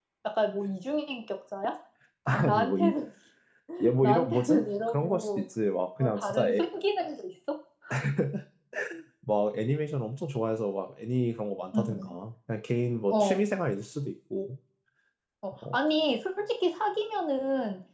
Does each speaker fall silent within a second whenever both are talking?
No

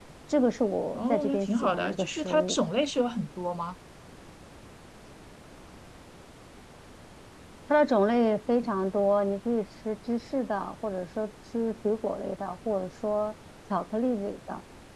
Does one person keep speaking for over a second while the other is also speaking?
Yes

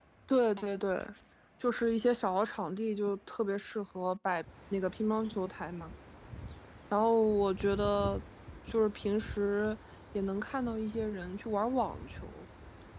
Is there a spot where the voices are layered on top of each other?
No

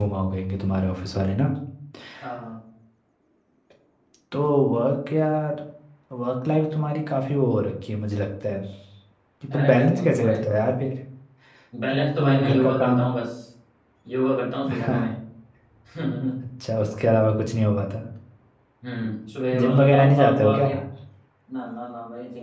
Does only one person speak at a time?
No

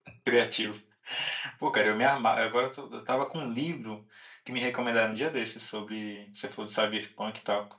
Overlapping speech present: No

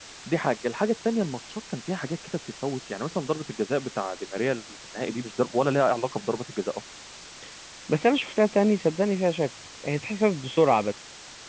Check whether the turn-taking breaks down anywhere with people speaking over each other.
No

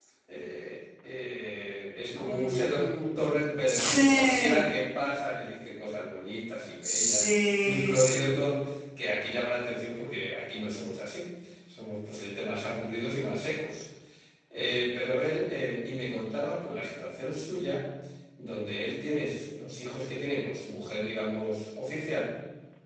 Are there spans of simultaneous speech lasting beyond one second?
Yes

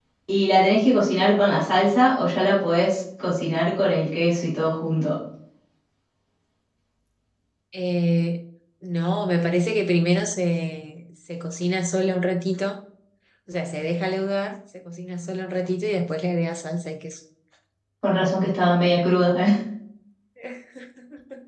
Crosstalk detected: No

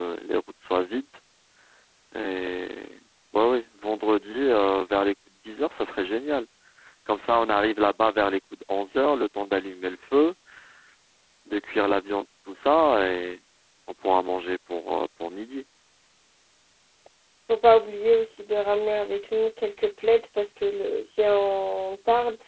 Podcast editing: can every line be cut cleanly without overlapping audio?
Yes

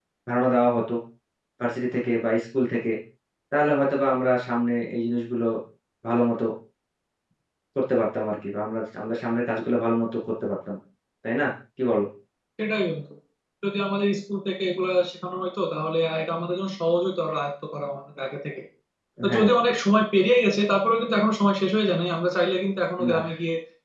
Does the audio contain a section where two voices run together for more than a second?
No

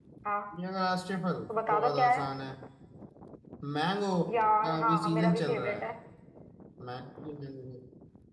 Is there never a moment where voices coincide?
No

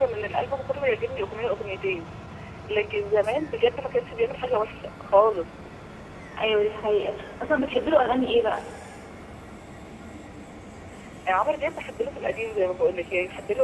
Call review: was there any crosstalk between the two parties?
No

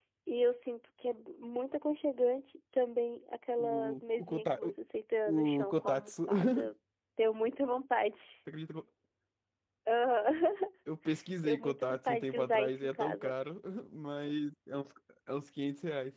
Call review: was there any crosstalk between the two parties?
Yes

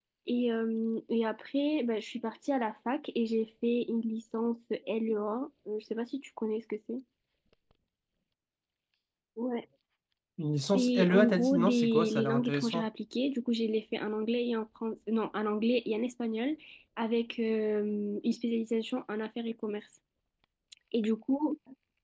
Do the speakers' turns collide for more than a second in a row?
Yes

